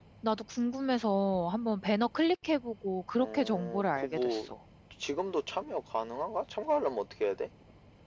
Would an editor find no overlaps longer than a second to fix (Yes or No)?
No